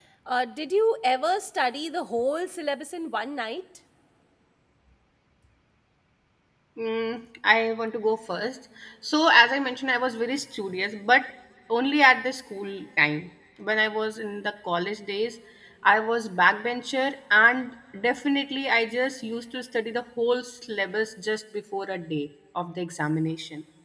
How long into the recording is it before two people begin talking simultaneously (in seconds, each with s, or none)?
none